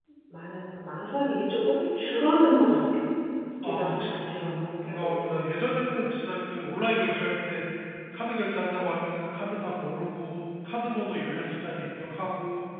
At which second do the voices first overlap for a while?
3.6 s

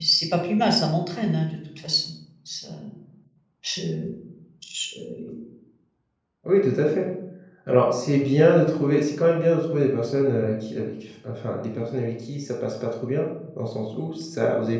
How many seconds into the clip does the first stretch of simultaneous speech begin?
none

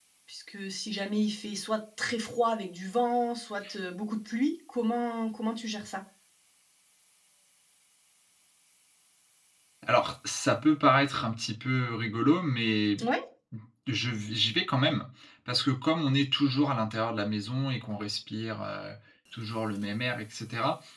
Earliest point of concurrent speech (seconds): none

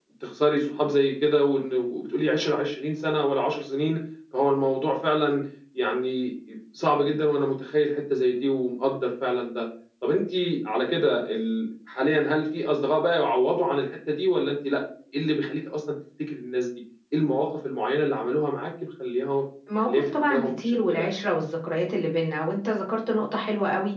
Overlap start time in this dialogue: 19.7 s

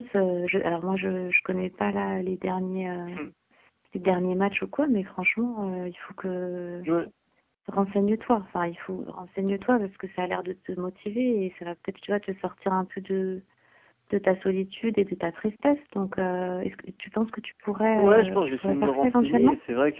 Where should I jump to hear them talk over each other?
17.9 s

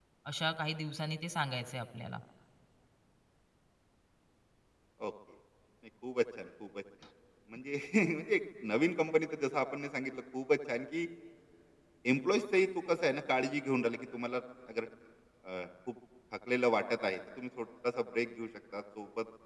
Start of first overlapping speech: none

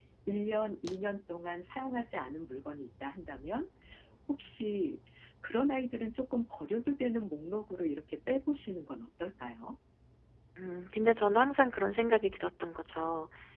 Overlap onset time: none

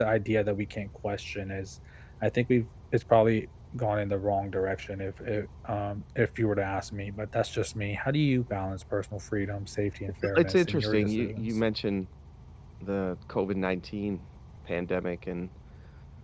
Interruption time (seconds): 10.3 s

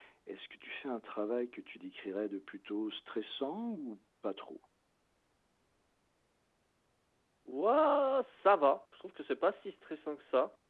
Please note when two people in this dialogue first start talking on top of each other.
none

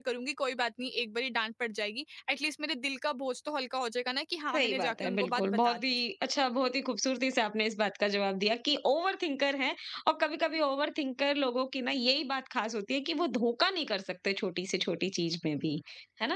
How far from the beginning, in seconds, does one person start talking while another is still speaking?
4.5 s

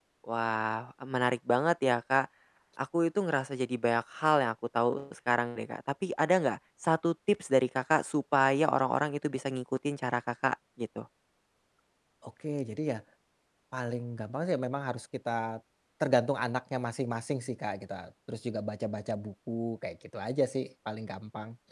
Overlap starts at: none

